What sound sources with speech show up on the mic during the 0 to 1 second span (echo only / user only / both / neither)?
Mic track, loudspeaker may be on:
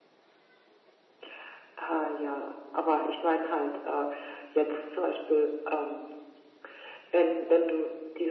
neither